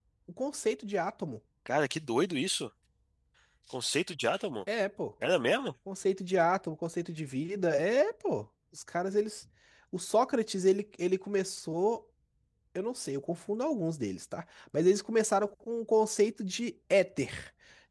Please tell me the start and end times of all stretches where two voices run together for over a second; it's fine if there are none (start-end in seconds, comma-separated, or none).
none